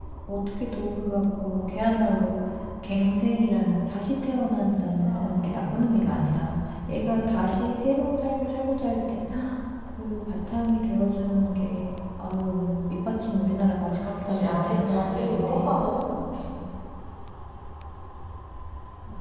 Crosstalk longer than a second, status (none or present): present